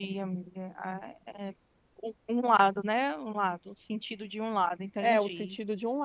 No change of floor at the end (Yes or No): No